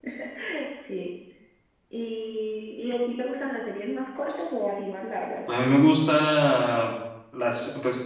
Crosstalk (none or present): none